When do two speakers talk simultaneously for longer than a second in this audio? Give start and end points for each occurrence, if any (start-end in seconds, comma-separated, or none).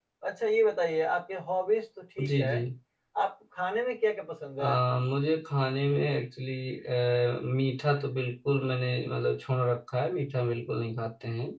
none